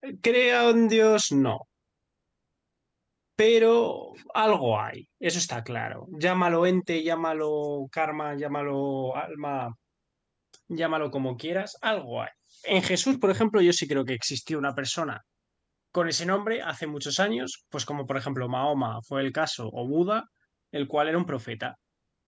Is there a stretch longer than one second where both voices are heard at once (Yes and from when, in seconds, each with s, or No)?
No